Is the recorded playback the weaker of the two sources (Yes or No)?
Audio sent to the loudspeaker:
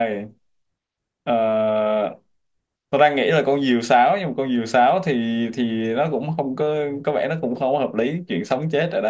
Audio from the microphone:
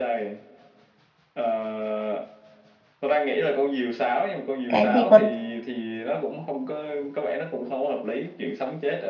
Yes